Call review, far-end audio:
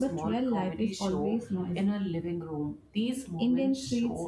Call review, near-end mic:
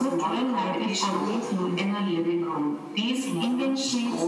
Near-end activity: none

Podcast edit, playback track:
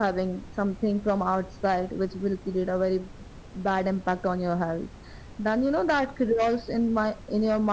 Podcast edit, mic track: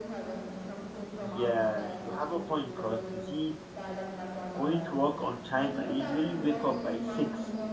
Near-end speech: present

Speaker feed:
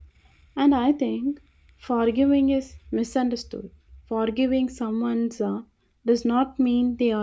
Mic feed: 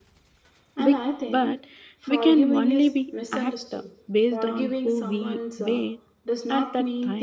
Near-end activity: present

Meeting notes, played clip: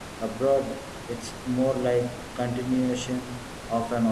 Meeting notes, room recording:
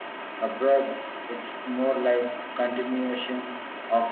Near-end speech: none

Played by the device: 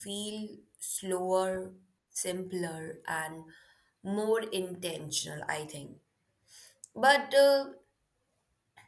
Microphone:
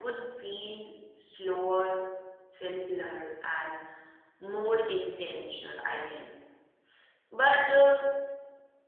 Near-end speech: none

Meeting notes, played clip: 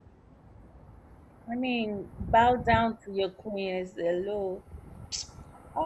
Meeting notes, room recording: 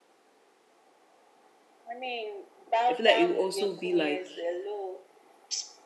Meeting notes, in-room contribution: present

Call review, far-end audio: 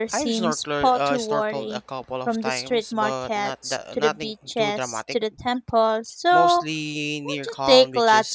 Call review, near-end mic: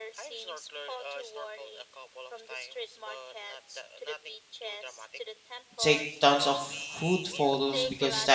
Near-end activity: present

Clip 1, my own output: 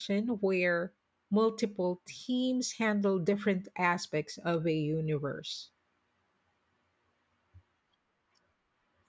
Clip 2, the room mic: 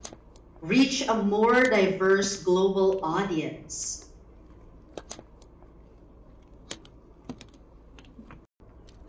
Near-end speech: present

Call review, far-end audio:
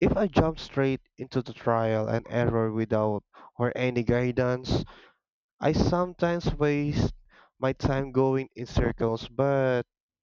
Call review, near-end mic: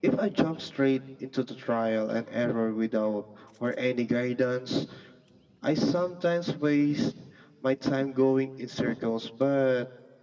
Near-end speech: none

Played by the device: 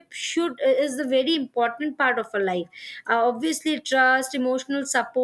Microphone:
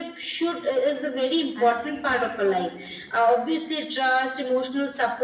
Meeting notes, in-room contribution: present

